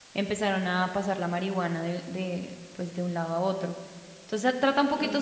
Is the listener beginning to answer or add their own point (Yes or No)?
No